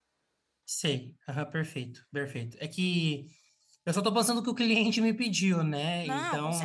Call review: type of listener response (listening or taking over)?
taking over